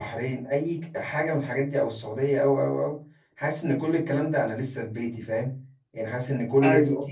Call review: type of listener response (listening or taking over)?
listening